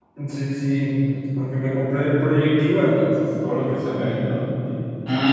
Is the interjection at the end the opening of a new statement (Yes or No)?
Yes